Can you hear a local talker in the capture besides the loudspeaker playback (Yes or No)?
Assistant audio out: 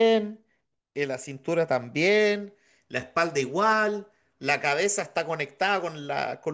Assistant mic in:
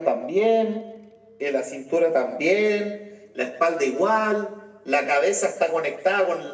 No